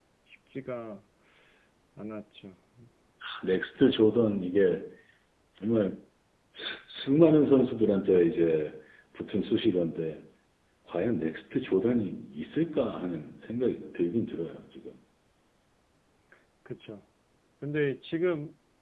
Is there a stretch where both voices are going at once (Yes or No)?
No